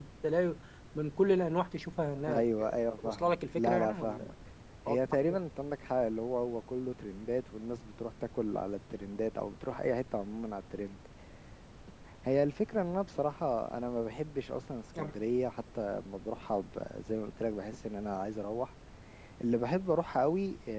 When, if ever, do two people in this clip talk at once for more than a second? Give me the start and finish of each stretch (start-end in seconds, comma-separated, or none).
2.3-4.3